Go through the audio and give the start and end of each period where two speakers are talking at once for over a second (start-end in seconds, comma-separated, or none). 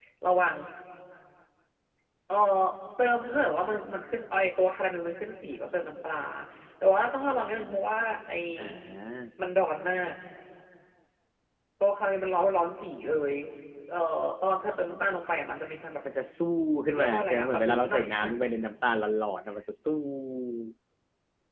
17.0-18.2